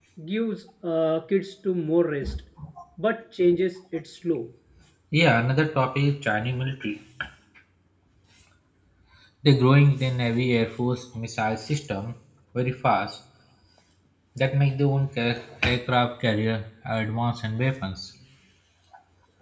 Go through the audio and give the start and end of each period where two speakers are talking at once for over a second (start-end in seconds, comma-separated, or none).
none